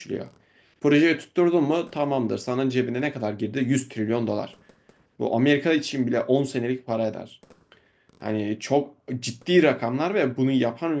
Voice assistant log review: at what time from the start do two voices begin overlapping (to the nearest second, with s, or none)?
none